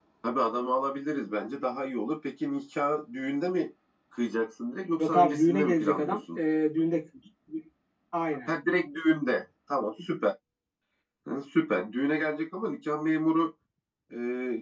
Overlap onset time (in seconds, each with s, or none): 5.0 s